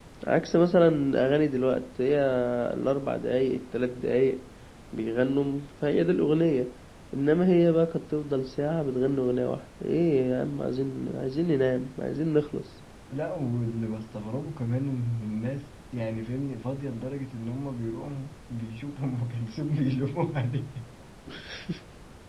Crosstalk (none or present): none